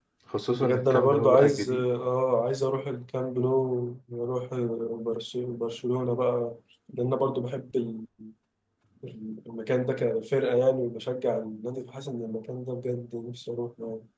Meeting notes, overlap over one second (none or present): present